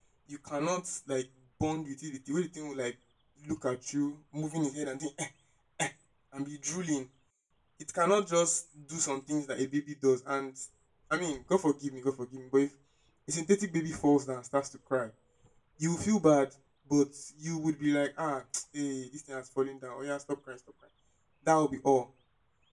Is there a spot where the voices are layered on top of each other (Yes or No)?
No